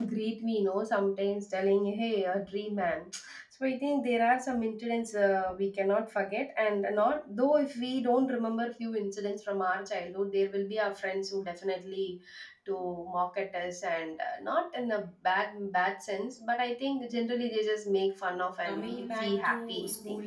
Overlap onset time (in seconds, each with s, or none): 18.6 s